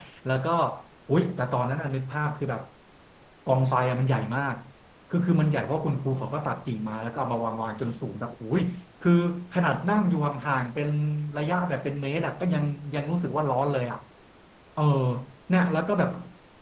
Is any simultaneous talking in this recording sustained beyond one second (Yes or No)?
No